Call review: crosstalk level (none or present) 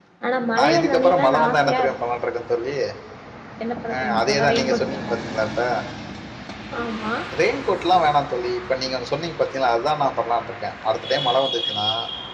present